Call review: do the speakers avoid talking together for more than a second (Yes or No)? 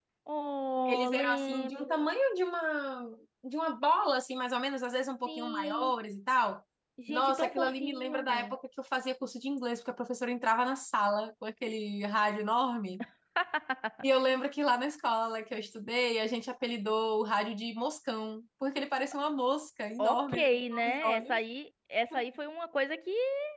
No